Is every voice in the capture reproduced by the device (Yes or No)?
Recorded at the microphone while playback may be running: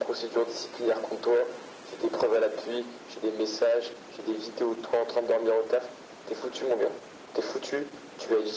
Yes